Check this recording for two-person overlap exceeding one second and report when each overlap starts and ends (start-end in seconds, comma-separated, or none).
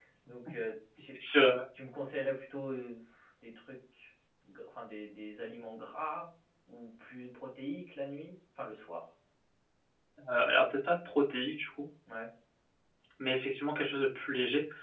none